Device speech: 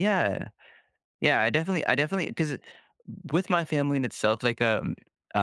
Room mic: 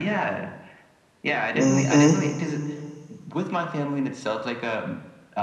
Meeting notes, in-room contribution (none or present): present